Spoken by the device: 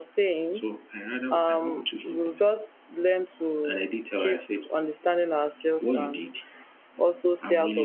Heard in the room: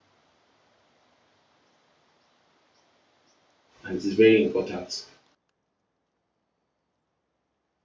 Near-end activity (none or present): present